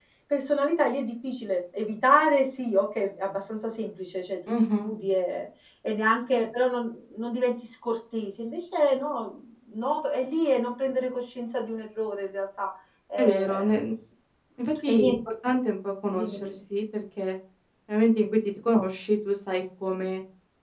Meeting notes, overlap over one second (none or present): none